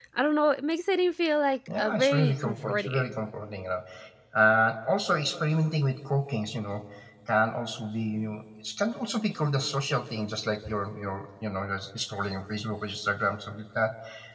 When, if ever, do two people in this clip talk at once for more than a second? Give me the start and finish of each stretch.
1.8-3.1

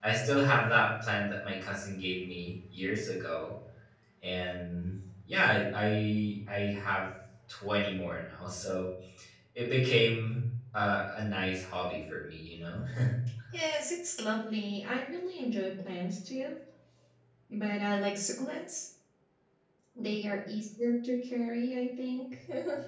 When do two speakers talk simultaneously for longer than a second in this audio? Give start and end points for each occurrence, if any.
none

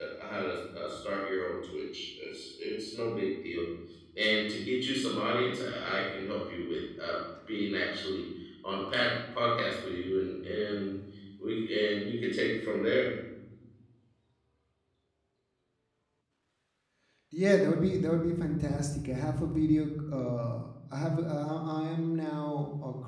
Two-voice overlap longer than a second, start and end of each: none

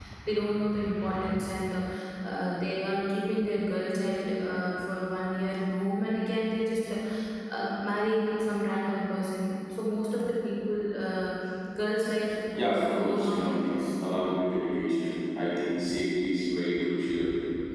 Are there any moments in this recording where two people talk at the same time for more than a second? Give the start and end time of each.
12.6-13.9

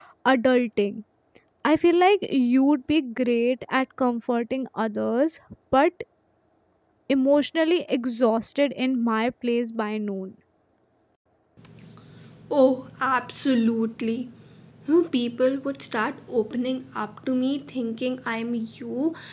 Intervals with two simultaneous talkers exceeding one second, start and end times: none

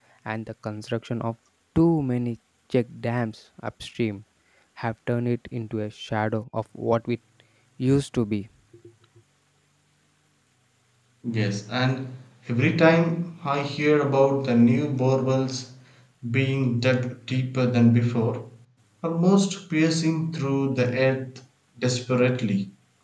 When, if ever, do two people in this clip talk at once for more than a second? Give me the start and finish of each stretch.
none

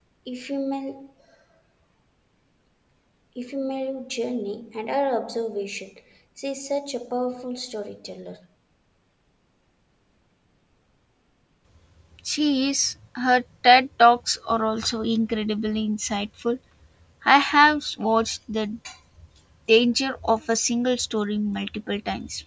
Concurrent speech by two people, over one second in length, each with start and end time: none

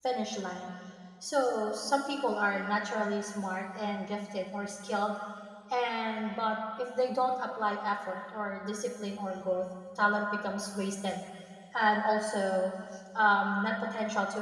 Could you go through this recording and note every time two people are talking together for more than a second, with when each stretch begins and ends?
none

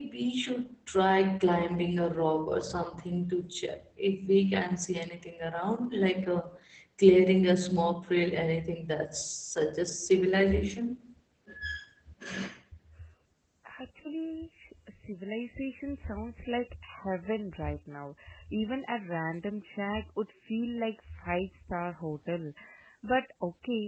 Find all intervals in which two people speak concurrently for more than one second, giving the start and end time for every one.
none

